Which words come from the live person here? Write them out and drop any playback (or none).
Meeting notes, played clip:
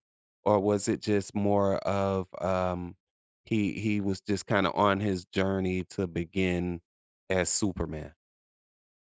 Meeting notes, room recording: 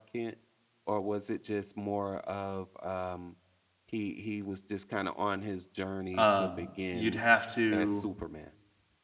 Um, you'd have to